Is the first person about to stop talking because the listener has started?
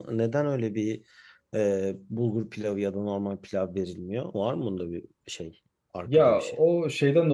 Yes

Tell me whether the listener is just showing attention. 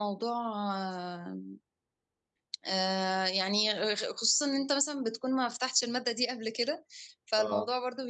Yes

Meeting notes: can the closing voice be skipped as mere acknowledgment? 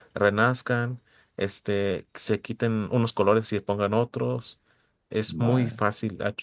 Yes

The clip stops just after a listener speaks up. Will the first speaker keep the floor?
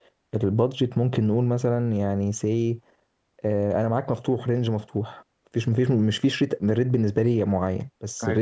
Yes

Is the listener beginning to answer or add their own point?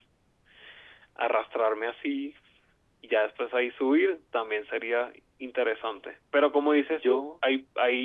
No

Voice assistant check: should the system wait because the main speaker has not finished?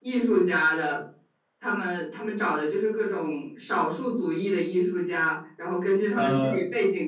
Yes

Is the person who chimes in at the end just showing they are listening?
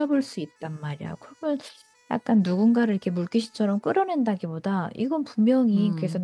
Yes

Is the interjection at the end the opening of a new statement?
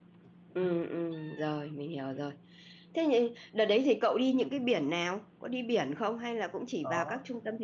Yes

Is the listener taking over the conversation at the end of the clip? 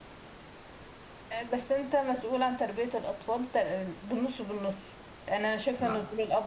Yes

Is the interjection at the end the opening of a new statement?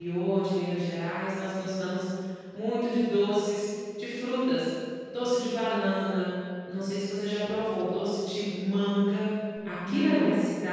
No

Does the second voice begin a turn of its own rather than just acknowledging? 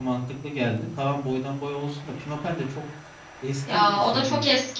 Yes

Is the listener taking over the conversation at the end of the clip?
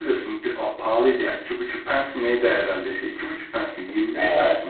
Yes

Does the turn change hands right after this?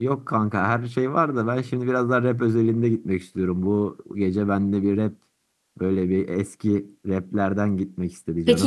Yes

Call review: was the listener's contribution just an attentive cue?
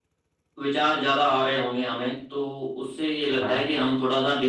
Yes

